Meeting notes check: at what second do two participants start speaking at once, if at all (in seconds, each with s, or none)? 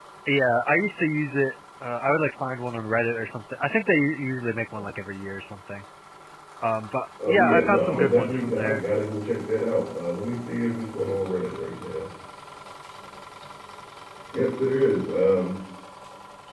7.3 s